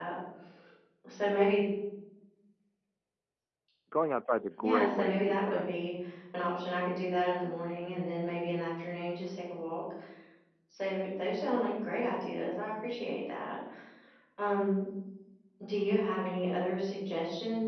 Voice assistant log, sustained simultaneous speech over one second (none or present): present